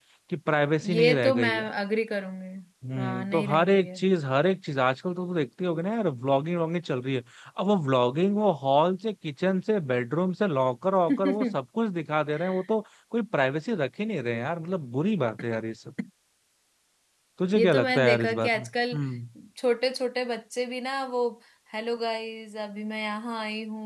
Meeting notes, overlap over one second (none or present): present